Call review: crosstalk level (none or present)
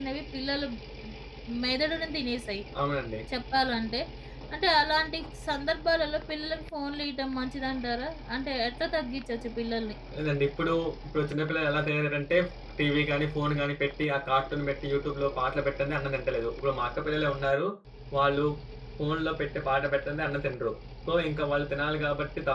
none